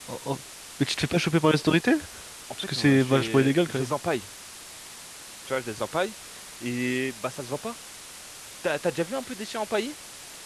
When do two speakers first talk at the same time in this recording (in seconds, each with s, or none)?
2.6 s